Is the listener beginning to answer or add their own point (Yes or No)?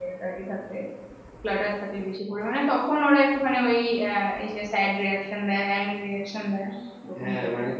Yes